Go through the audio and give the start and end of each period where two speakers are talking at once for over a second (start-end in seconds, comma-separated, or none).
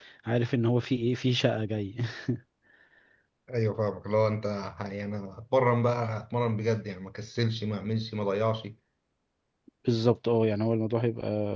none